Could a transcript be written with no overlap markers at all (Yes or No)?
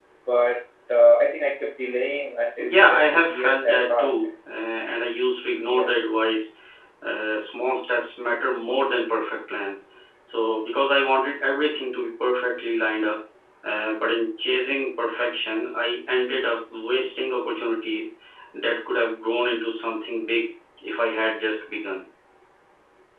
No